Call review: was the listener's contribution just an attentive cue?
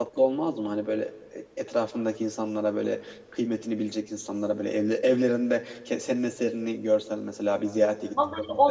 No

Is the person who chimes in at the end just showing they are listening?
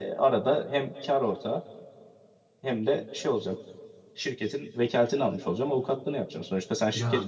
Yes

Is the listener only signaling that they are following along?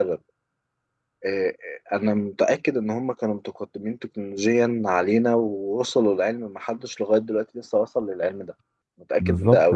No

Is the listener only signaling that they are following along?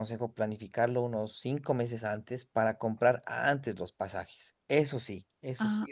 No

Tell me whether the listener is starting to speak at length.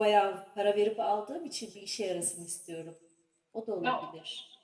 Yes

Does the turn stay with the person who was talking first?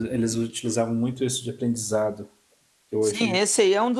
No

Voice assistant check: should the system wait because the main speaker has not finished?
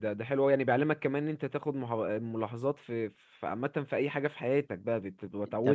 No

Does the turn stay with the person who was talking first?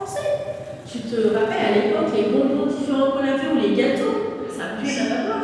No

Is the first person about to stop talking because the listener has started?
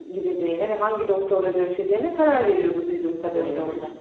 Yes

